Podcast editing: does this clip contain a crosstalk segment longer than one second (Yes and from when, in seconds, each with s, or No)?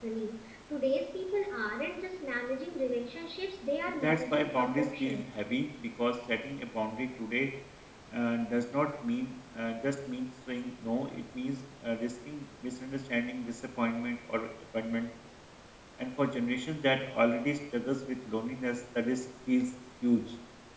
Yes, from 3.9 s